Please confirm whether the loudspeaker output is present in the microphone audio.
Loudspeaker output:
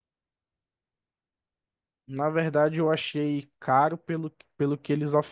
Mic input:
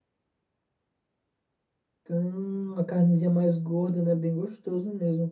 No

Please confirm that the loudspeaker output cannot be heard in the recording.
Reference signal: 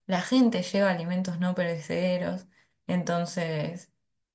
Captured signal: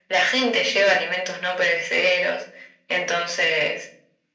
No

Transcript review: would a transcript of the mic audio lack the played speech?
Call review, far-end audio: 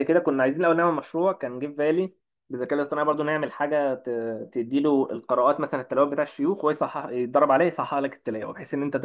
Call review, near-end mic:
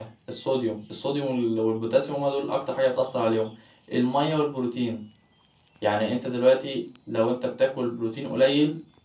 Yes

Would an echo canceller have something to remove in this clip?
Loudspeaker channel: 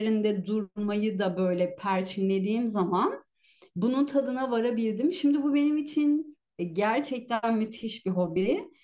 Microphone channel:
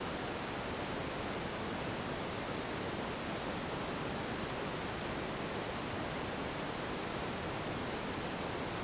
No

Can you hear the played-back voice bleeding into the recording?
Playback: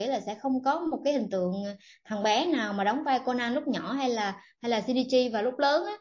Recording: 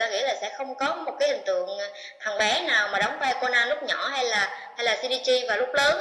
Yes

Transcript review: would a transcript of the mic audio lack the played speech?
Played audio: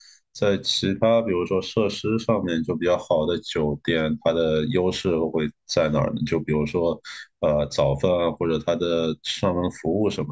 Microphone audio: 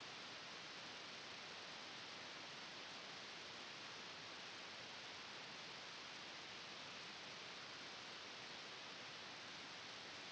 Yes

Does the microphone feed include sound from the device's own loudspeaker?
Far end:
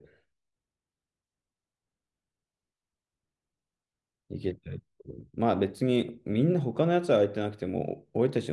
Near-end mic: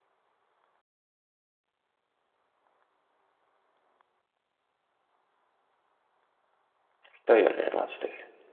No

